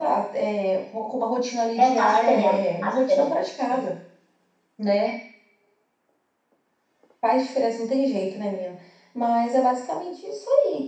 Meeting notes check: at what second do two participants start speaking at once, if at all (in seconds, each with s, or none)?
1.8 s